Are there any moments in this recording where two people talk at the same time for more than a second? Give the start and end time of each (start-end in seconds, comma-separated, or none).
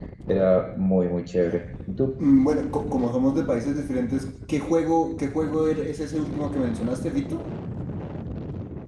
none